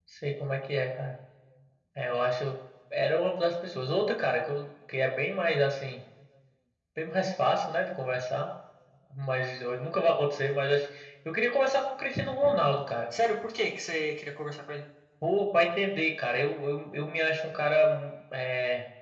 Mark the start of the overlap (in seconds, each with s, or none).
none